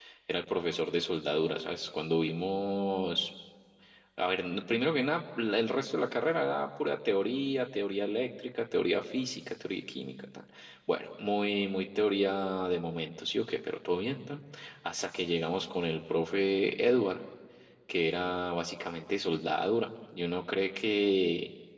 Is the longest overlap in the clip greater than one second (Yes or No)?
No